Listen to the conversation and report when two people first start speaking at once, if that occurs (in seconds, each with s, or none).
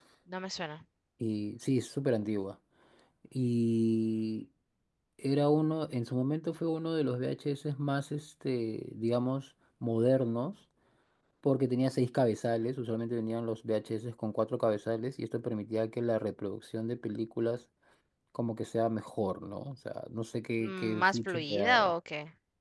20.6 s